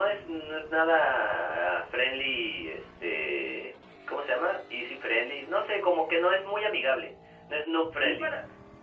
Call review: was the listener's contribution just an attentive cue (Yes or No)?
No